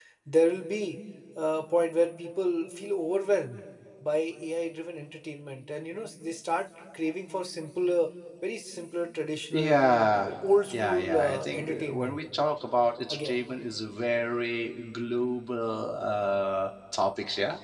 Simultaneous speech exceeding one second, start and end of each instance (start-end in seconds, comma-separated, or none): 10.7-12.2